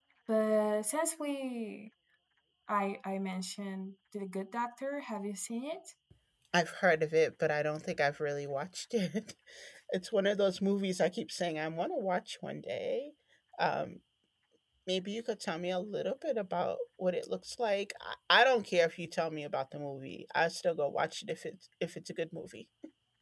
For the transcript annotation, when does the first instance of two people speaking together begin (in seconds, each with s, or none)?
none